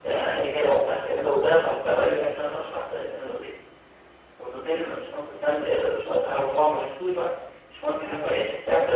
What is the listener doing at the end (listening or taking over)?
listening